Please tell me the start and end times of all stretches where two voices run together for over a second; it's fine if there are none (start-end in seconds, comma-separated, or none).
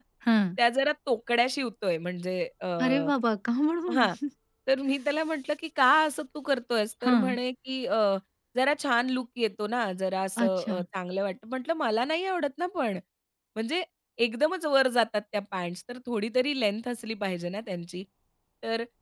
none